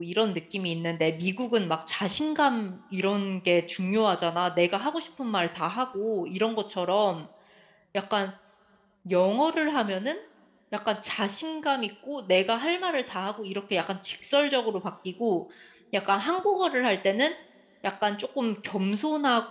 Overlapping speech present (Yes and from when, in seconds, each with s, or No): No